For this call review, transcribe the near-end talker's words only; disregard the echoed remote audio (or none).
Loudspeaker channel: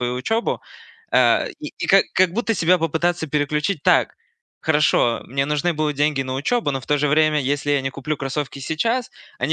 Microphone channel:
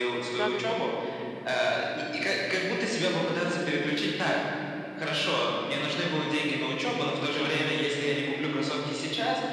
Да-да-да.